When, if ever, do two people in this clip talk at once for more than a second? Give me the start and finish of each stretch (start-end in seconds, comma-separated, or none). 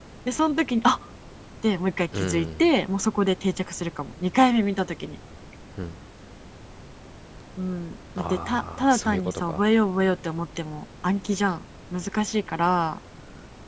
8.2-9.6